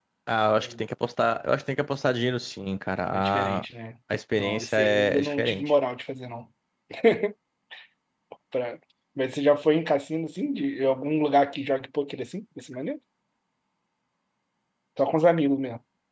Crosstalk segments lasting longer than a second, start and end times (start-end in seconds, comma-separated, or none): 4.4-5.7